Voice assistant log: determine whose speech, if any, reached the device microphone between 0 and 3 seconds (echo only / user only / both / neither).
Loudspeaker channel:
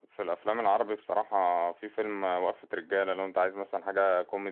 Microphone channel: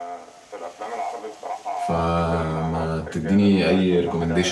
both